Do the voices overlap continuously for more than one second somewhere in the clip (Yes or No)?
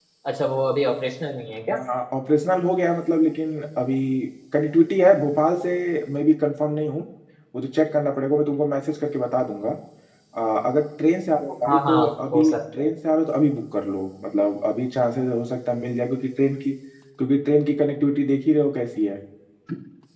Yes